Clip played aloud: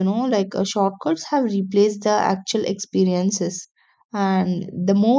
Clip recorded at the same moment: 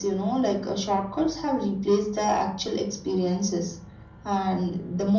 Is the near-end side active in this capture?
No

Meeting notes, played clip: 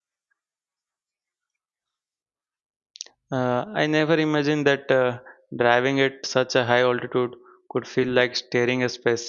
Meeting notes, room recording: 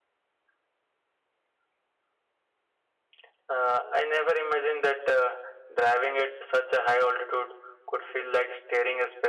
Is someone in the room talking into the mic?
No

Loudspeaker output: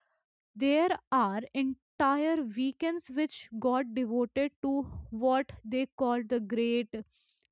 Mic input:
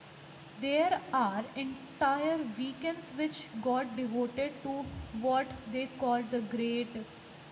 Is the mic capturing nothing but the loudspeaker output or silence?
Yes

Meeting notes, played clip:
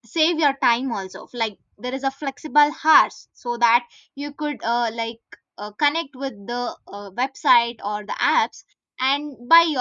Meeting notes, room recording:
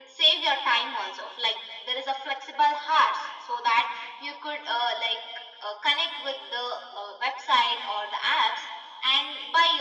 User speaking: No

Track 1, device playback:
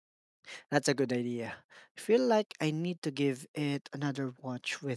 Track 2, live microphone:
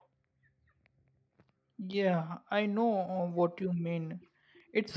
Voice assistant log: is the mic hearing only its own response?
No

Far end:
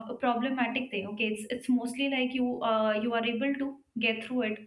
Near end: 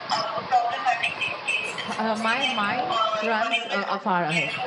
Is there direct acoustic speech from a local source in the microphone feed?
Yes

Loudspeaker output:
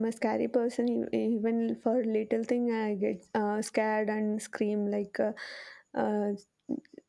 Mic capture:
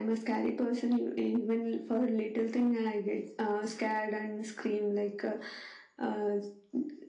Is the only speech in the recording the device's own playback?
Yes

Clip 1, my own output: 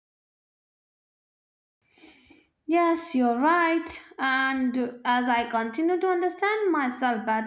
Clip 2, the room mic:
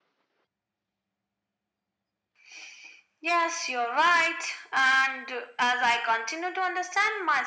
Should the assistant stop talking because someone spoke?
No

